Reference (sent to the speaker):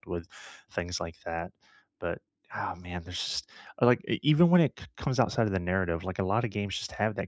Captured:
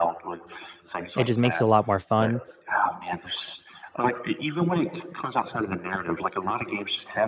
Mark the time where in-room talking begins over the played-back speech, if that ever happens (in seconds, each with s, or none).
1.2 s